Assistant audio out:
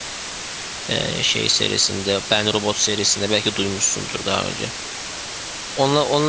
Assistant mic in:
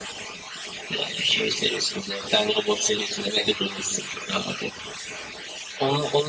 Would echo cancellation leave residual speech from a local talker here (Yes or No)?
No